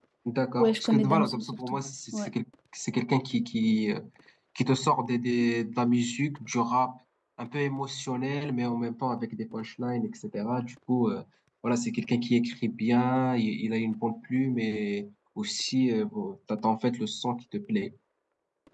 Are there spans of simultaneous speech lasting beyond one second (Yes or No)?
Yes